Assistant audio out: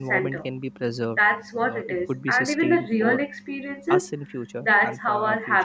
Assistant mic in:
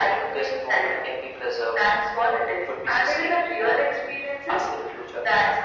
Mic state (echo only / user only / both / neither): echo only